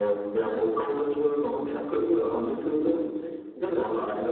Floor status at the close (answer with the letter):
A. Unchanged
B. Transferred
B